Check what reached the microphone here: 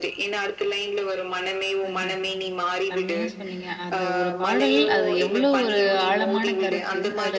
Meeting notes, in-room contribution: present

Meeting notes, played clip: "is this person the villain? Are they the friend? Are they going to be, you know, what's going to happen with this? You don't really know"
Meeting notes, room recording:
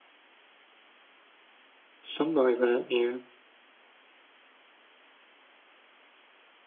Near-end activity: present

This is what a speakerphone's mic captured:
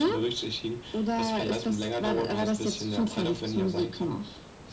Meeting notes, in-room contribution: none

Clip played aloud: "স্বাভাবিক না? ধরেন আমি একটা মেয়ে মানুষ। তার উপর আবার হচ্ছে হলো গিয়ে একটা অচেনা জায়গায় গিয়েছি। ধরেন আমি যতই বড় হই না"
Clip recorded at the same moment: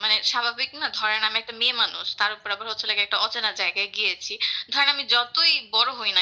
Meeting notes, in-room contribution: none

